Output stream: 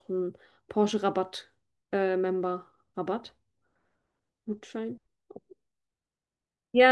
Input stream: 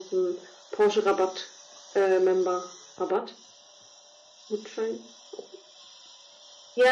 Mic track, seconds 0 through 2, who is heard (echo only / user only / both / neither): echo only